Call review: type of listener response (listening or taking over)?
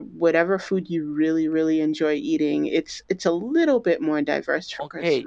taking over